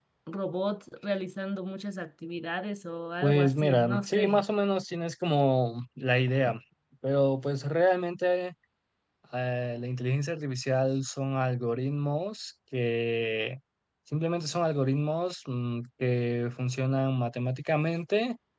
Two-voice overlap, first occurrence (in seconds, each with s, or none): 3.2 s